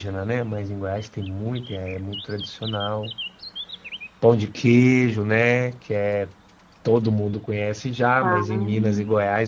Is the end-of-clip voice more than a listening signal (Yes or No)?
No